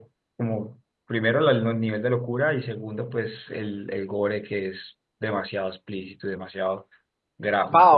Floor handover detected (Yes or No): Yes